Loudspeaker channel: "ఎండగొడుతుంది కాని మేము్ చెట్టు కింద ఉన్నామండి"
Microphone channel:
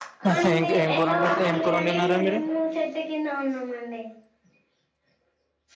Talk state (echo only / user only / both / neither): both